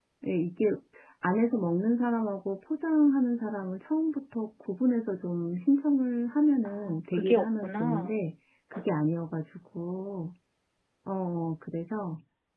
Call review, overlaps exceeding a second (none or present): present